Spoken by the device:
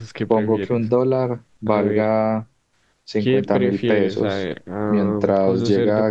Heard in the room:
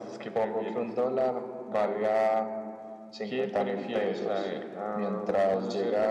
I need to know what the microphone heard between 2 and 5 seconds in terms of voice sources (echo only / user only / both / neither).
echo only